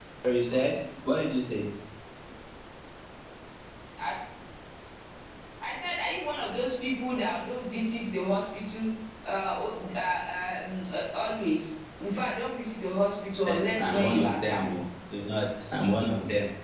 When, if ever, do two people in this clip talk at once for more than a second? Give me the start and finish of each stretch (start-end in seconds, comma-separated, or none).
13.5-14.8